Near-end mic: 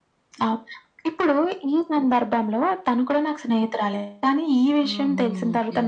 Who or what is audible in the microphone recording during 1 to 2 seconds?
echo only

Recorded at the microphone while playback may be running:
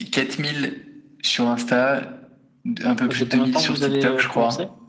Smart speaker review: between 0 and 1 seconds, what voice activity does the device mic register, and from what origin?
echo only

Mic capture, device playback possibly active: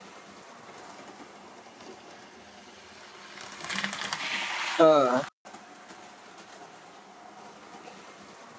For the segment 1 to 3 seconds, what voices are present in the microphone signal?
neither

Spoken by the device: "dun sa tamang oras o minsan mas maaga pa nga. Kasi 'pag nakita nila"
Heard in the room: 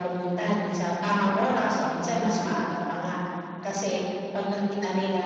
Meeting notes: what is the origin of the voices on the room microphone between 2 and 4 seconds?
echo only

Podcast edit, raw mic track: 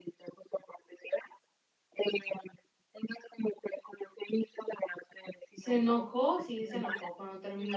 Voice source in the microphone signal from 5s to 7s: both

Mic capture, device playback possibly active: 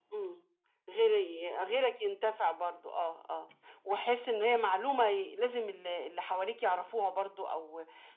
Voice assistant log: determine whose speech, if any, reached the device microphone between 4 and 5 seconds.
echo only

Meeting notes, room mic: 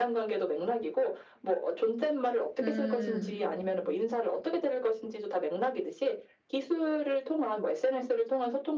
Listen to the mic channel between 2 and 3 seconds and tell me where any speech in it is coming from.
both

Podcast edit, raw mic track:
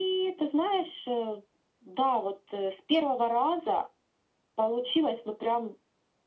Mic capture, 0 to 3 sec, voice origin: echo only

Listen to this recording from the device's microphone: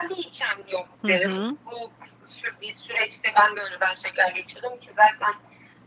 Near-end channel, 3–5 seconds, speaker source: echo only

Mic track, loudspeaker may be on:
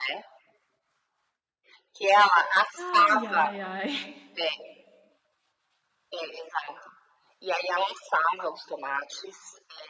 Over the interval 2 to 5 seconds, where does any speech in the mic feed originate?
both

